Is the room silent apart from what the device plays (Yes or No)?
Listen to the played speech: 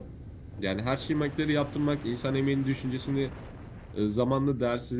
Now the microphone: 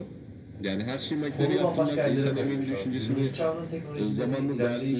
No